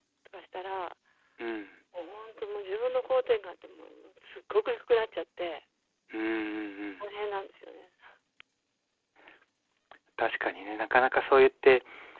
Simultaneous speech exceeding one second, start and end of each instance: none

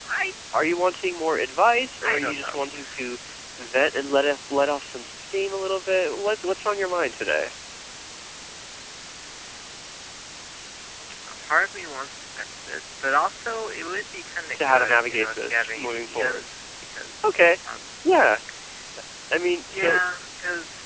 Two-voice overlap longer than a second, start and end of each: 14.5-16.4

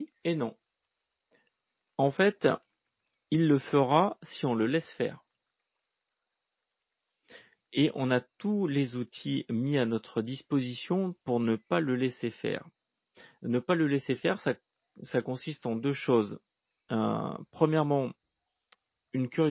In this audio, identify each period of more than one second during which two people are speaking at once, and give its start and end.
none

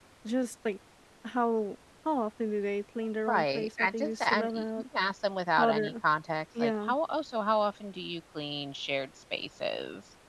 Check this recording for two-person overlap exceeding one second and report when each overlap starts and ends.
3.3-4.6

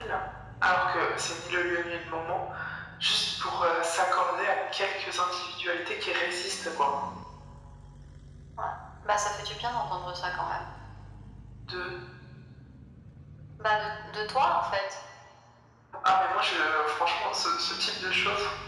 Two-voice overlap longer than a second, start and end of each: none

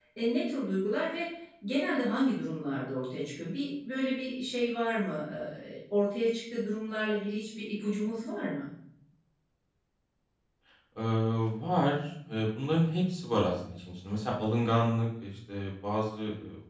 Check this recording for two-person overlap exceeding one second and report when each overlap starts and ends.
none

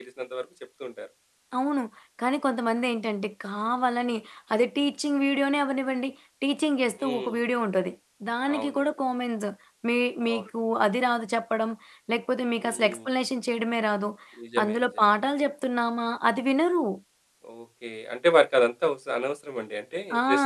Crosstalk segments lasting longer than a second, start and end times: none

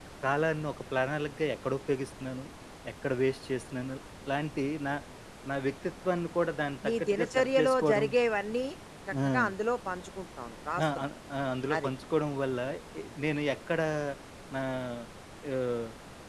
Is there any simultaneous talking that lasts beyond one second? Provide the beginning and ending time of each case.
6.8-8.1

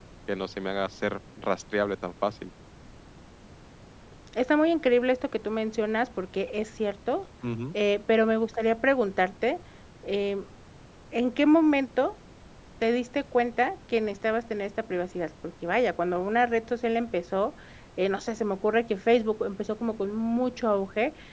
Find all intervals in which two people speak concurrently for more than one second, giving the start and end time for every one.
none

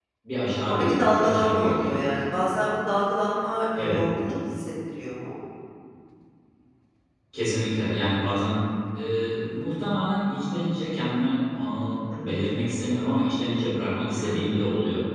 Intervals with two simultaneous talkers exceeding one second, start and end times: 0.7-2.0

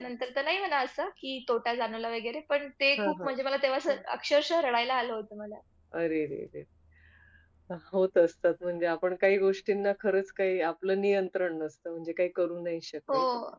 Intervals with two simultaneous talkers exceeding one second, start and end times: none

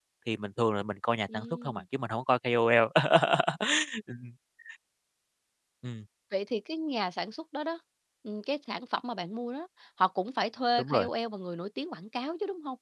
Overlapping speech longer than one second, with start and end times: none

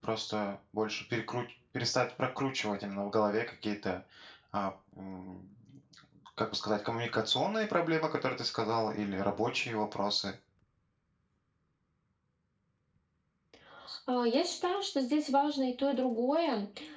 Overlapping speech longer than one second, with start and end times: none

